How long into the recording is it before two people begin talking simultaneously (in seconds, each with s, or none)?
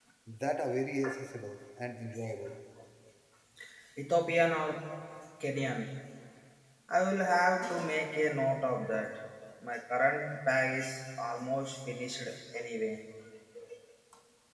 none